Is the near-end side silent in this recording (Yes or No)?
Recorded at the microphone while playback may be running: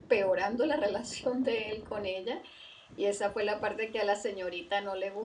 No